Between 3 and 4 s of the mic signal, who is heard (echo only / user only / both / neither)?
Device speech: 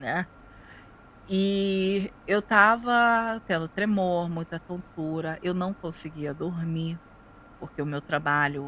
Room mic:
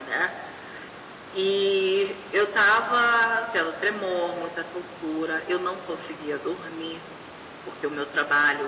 echo only